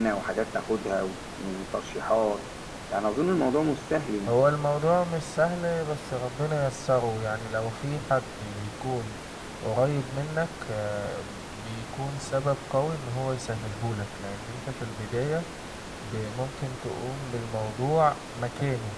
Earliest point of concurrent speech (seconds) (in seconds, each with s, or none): none